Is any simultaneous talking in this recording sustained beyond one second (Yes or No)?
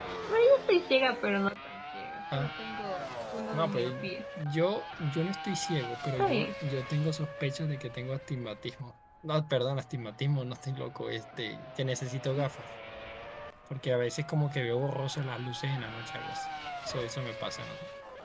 No